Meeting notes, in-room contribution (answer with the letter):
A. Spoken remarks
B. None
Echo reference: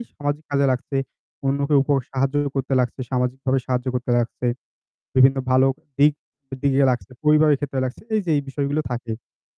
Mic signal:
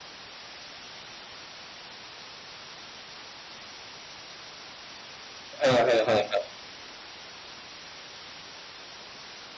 A